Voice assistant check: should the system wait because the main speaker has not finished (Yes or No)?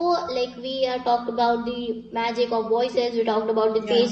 Yes